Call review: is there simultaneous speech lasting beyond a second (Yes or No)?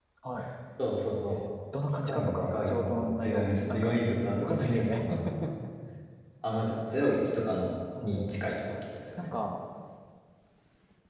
Yes